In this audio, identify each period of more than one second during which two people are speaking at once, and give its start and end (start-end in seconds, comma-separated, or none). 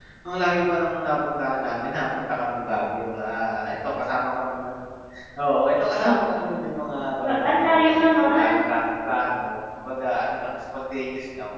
7.2-8.7